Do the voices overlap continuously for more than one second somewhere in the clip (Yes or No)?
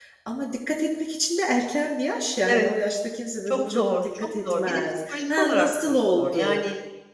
Yes